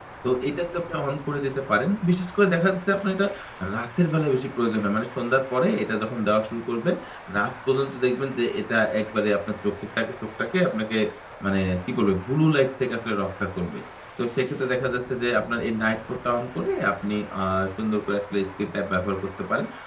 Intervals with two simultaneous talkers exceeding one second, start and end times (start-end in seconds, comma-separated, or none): none